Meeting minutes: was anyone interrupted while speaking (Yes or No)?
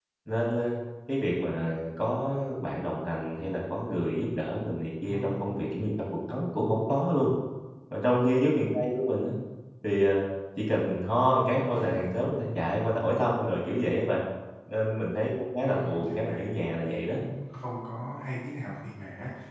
Yes